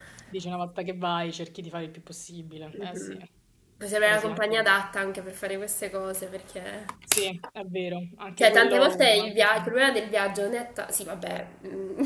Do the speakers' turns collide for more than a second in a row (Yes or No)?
Yes